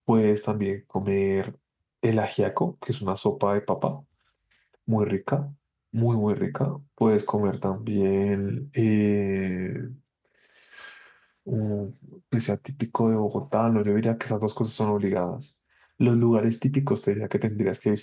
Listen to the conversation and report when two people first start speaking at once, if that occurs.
none

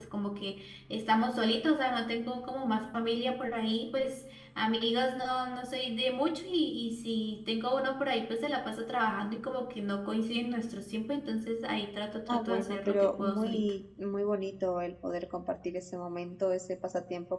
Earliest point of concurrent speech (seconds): 12 s

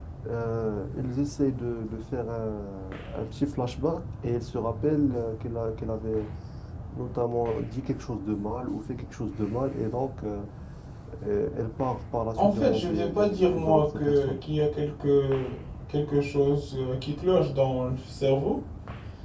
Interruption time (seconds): 12 s

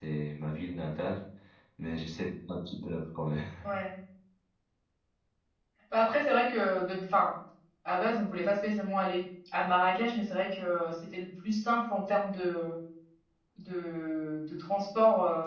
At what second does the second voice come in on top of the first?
none

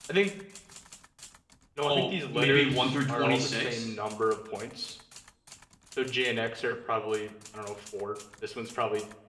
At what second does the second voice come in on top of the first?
2 s

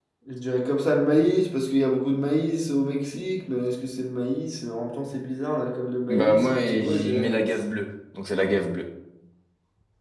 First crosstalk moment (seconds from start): 6 s

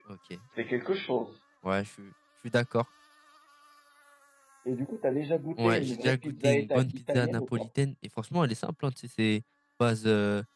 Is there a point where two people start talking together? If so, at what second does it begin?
6 s

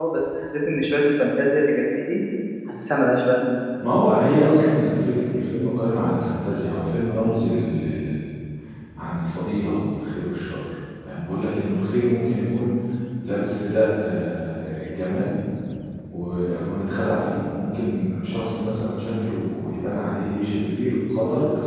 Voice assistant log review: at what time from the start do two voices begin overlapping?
none

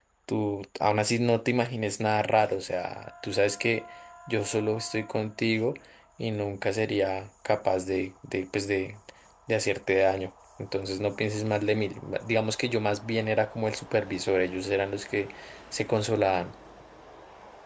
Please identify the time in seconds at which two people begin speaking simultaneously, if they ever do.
none

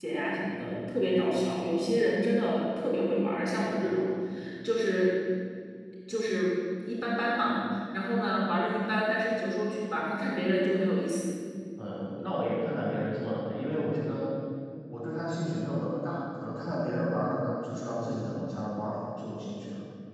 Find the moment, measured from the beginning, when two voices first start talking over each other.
none

